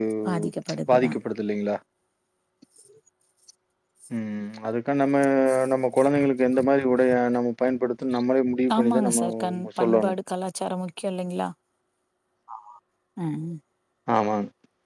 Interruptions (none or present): present